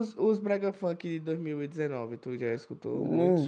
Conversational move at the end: taking over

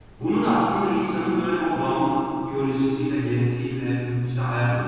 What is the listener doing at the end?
listening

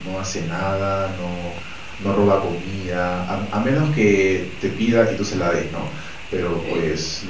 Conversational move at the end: listening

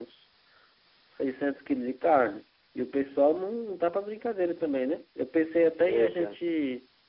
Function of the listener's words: listening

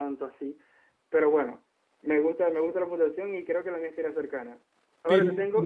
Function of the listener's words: taking over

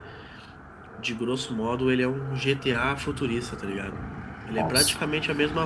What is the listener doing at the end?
listening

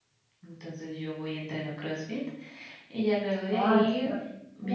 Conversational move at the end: taking over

